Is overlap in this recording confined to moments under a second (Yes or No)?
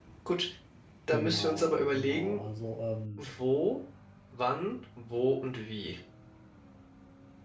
No